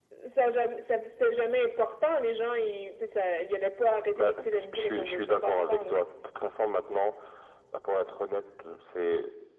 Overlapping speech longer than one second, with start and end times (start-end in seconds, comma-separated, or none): 4.2-5.9